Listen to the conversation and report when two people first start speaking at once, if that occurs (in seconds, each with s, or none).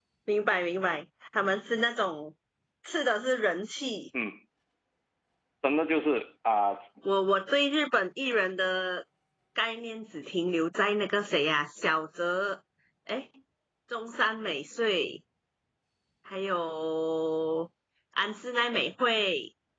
none